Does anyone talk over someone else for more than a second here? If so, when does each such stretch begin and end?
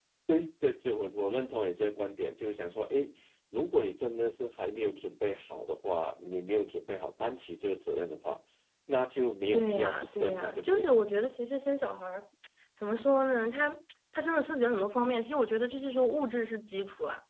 9.5-10.9

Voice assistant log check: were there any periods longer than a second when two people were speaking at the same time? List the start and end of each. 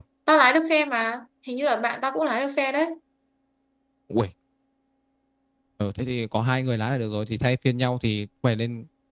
none

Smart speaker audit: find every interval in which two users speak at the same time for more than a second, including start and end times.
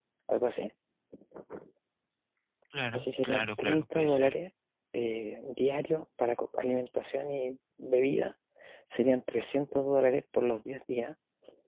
2.9-4.4

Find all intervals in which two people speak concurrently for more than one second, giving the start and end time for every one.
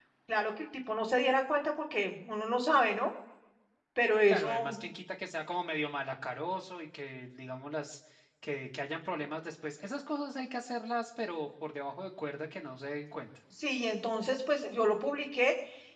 none

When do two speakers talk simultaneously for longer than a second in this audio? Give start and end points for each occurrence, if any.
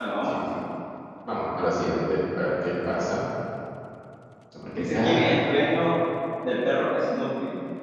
none

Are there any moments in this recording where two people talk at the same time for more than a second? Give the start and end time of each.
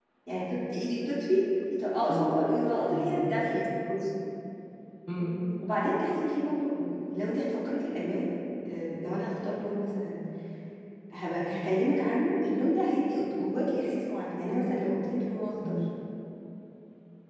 none

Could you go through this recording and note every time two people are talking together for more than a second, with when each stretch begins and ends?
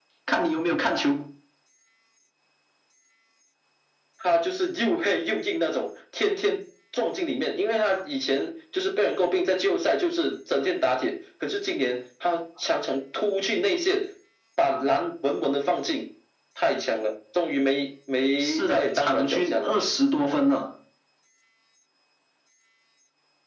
18.4-19.7

